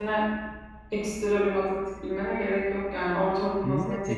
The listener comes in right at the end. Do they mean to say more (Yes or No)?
Yes